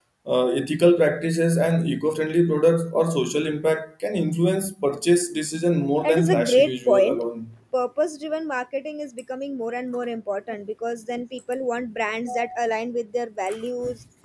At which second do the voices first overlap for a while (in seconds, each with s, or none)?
6.0 s